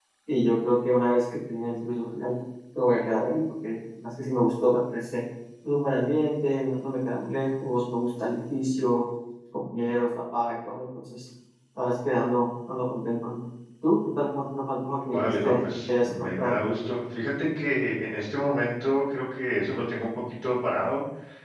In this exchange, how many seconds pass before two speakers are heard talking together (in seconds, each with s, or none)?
15.1 s